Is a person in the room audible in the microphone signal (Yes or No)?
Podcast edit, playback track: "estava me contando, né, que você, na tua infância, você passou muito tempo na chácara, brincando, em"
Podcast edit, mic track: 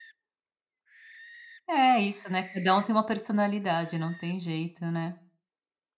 Yes